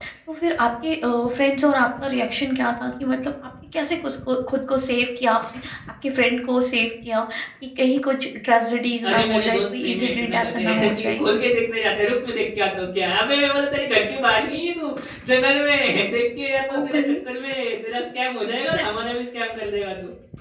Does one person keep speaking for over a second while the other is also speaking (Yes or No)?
Yes